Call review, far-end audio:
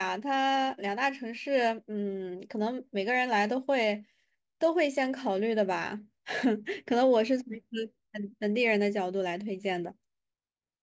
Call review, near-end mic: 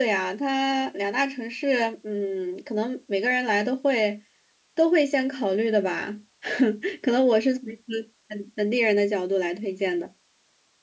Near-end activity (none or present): none